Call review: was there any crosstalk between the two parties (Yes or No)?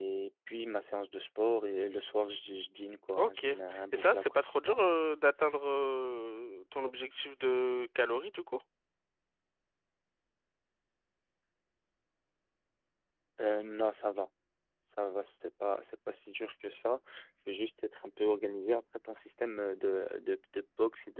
Yes